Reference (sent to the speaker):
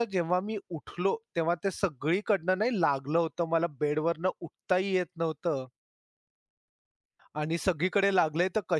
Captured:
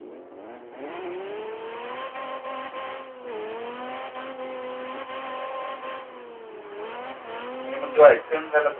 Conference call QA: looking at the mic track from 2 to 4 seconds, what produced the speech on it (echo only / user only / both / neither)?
neither